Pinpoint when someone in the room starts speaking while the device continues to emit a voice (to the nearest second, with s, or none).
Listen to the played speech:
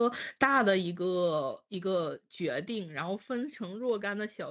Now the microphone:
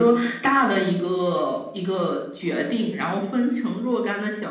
none